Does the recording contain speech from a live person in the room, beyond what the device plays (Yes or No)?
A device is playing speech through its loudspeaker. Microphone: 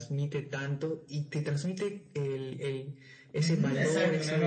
Yes